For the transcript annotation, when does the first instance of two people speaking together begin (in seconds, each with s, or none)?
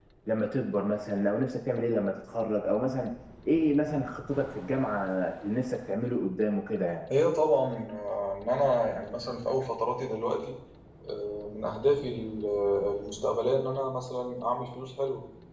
none